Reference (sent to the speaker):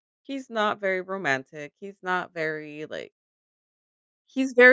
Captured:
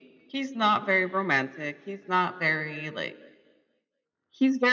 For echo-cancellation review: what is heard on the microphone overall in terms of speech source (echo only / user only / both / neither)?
echo only